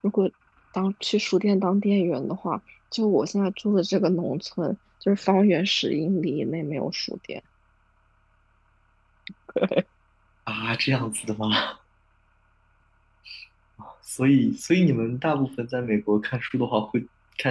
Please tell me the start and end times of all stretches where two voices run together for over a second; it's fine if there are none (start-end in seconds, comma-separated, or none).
none